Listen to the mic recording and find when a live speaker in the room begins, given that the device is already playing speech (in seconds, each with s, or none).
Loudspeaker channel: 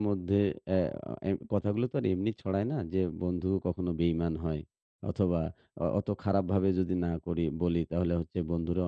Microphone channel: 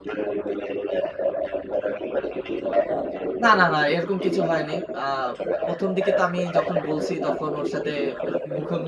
3.4 s